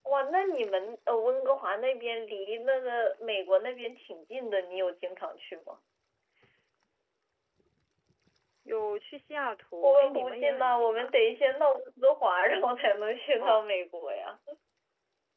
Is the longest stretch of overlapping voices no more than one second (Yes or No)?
No